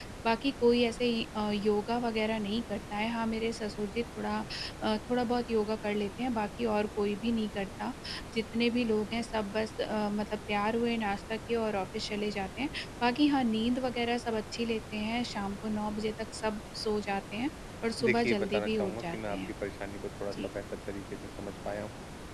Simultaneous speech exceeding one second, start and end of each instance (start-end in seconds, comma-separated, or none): 18.0-19.4